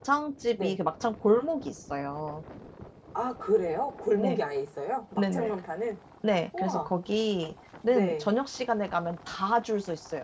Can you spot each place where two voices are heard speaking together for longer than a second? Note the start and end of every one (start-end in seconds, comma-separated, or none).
none